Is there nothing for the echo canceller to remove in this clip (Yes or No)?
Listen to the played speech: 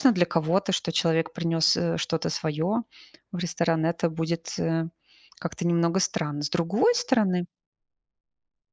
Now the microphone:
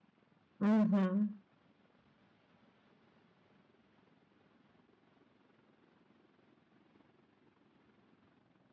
Yes